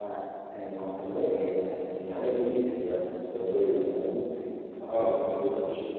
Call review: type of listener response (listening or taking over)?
listening